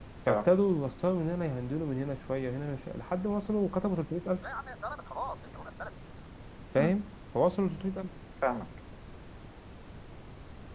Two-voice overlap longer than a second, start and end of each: none

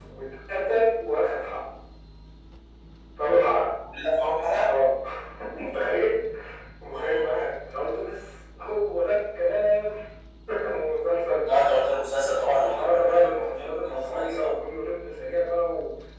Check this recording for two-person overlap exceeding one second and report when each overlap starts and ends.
12.5-14.5

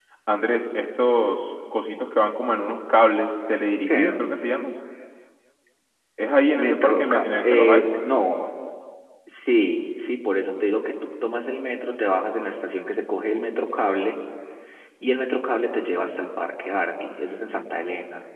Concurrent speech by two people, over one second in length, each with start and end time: 6.6-7.9

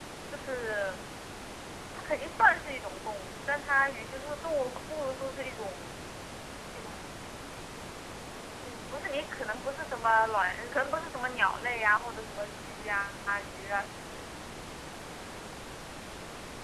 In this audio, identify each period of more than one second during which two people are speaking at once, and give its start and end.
none

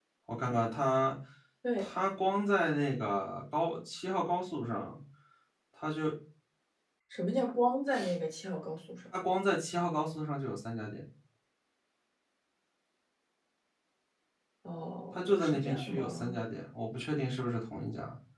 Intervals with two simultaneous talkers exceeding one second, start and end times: 15.1-16.4

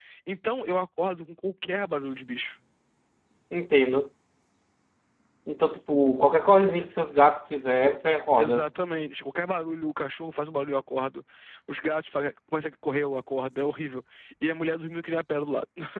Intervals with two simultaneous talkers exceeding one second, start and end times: none

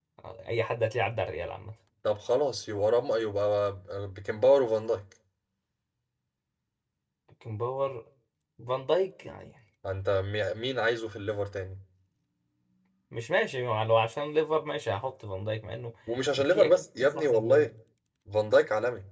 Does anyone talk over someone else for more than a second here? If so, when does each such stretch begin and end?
16.4-17.7

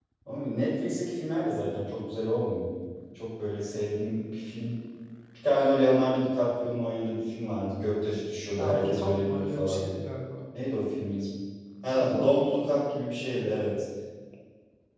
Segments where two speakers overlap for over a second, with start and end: 8.6-9.8, 11.9-13.6

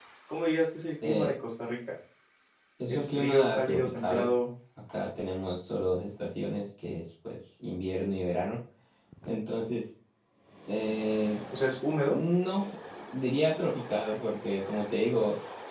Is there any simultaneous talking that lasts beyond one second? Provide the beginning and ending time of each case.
2.9-4.3

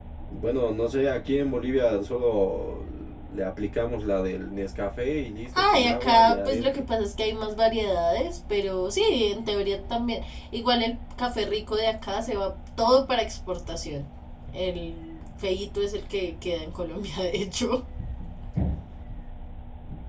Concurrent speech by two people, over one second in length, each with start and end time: 5.6-6.8

